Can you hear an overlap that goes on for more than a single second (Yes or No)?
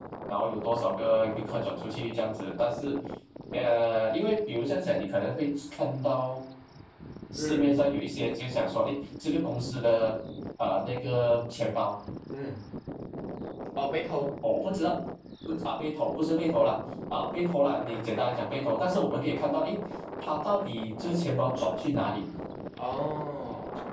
No